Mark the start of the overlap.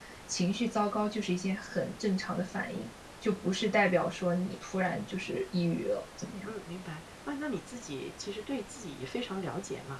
none

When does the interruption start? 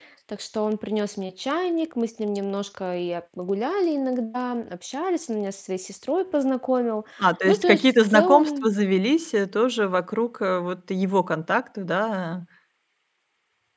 7.5 s

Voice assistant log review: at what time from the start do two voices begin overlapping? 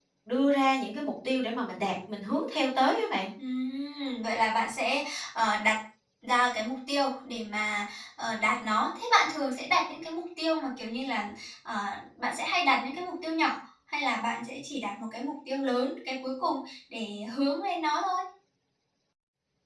none

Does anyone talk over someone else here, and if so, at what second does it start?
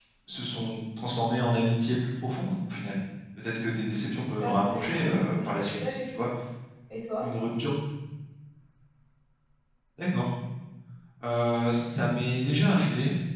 4.4 s

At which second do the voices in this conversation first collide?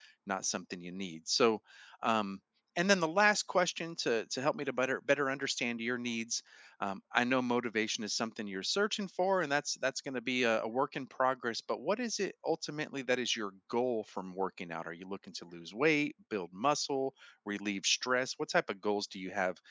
none

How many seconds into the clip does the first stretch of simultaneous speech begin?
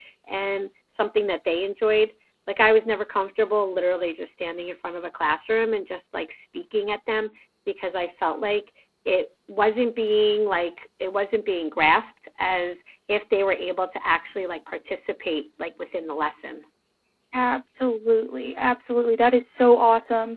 none

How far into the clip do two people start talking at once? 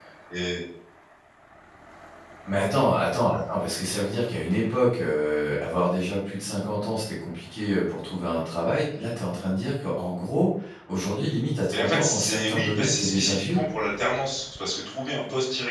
11.7 s

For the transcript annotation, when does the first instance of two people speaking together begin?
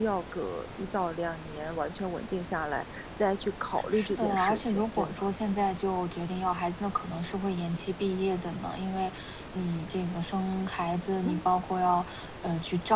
3.9 s

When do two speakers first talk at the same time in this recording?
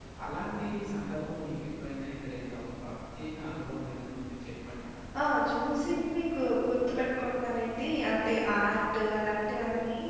none

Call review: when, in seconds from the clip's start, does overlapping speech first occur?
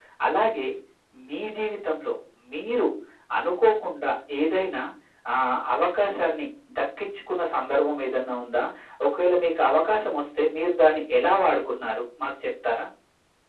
none

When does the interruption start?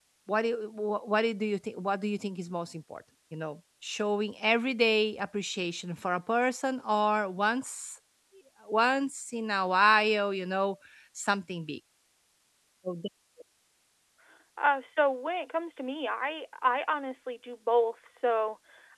none

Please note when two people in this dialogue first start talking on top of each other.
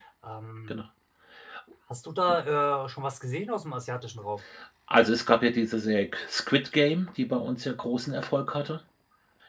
none

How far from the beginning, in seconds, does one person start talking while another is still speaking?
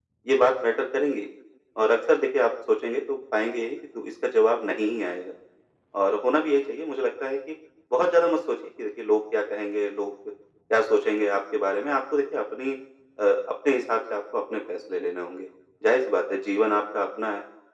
none

